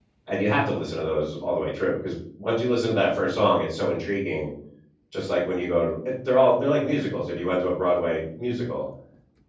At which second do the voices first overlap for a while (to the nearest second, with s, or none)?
none